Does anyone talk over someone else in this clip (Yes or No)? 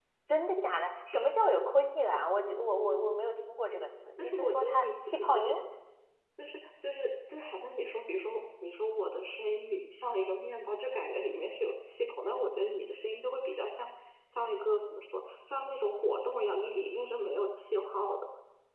Yes